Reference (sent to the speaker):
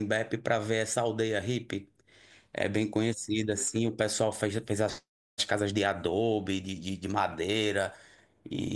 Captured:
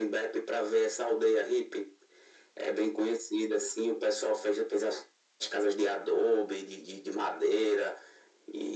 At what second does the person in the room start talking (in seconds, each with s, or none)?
none